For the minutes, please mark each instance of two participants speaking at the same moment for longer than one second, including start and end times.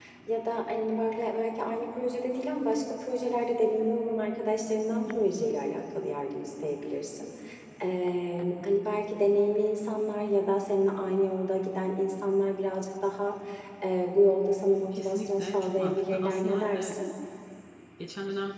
15.0-17.0

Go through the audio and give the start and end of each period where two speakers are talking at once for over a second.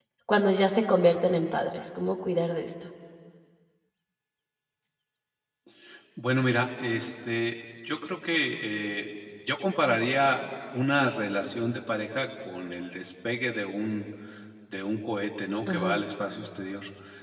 none

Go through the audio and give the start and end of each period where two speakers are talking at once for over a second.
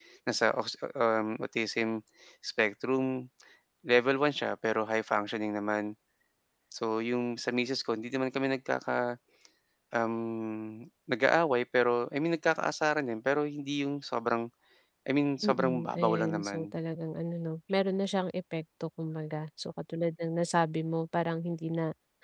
15.4-16.7

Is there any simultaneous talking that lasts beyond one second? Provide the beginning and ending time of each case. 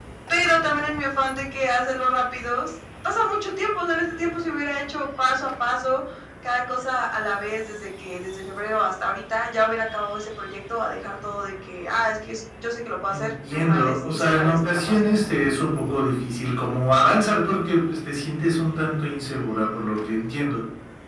13.1-15.0

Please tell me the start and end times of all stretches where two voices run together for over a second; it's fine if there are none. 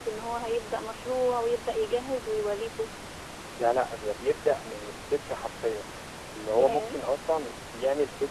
none

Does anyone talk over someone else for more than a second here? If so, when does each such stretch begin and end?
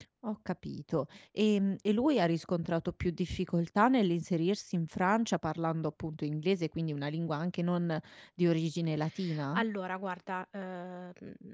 none

